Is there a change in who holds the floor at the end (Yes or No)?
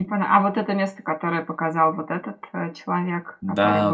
Yes